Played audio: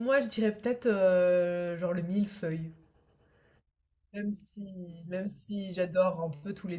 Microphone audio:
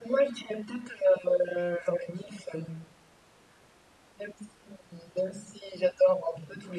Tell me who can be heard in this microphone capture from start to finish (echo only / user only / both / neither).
echo only